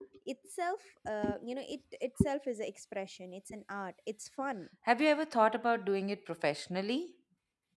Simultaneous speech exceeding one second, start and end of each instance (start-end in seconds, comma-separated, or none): none